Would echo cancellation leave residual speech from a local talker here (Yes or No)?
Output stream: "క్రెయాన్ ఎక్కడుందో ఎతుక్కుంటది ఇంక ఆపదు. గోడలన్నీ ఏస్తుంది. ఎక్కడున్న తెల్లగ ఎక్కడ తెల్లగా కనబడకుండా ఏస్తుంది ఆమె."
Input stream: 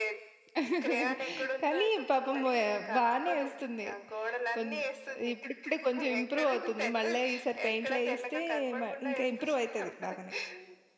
Yes